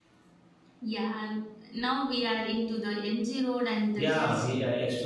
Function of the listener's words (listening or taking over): taking over